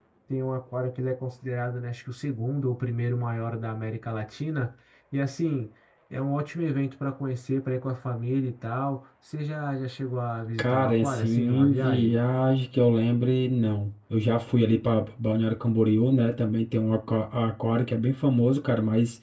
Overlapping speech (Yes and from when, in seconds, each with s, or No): Yes, from 10.6 s